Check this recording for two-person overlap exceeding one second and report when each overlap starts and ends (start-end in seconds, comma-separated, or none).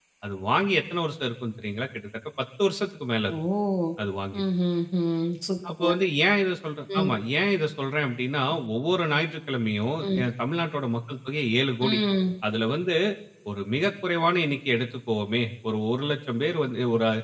none